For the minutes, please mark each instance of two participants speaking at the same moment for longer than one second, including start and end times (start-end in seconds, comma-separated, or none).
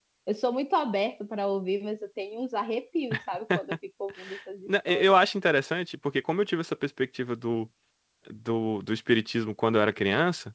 none